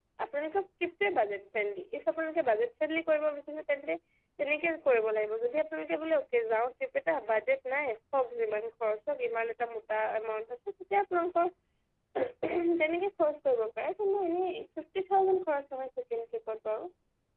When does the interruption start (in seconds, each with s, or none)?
none